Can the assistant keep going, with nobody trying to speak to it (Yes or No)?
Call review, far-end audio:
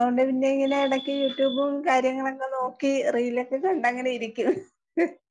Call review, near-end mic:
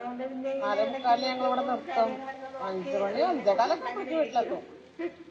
No